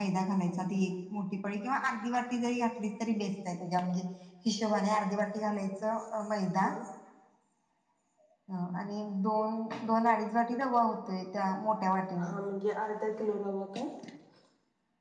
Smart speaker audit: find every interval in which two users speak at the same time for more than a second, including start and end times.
none

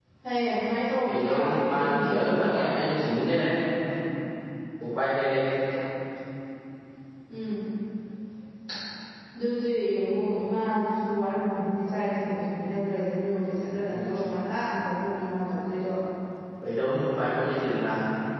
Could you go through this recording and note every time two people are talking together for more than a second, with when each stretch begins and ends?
1.0-2.5

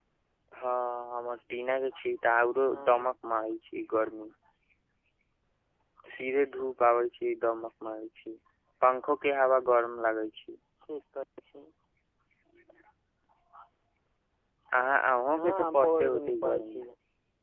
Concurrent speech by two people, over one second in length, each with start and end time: 15.4-16.8

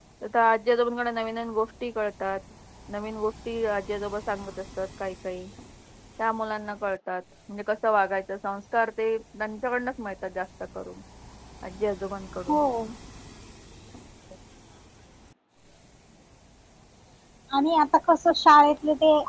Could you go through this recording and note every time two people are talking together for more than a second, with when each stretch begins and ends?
none

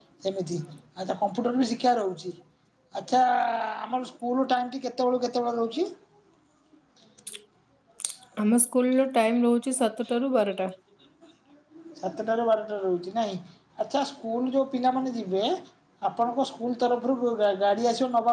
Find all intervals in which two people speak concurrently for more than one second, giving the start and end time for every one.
none

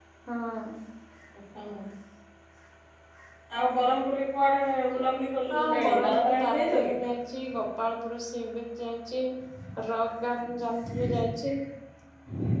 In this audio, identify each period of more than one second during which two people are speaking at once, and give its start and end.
5.5-6.9

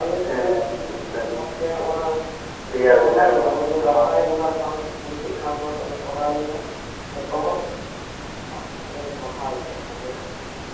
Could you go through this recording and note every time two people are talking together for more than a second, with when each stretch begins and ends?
3.0-4.2

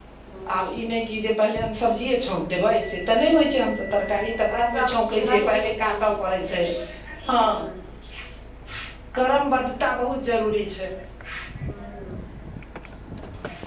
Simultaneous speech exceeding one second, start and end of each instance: 4.5-6.1

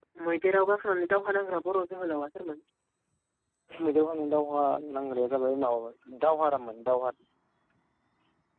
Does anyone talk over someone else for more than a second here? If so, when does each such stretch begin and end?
none

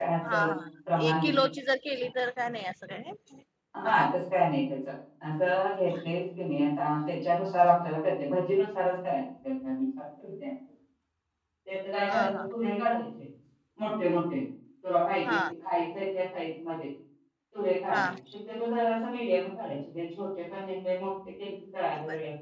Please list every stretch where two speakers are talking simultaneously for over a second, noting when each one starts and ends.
none

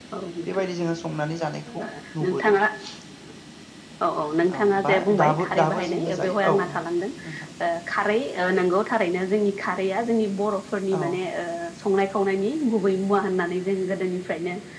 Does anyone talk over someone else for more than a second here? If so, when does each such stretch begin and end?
4.6-6.6

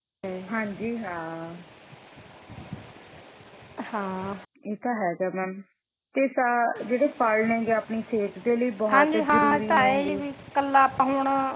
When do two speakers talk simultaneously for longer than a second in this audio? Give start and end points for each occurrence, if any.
8.9-10.2

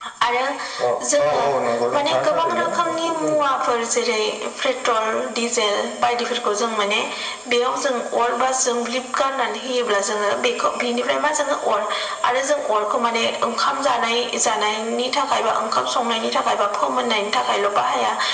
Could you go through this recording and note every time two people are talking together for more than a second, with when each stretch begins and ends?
1.9-3.5

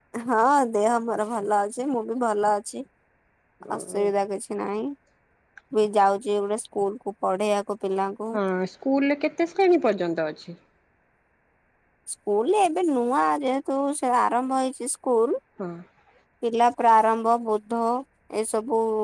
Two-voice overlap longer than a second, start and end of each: none

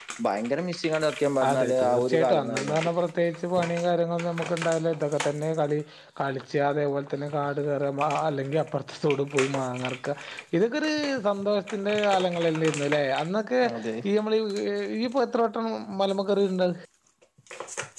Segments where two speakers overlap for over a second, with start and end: 1.5-2.9

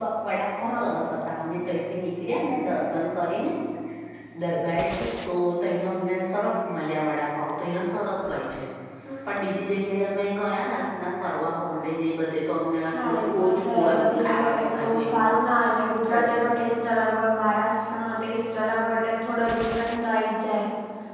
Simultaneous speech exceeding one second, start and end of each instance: 13.0-15.2

